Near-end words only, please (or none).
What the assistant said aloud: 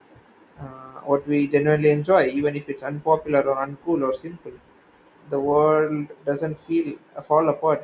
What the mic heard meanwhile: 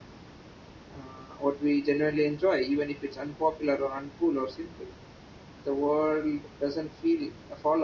none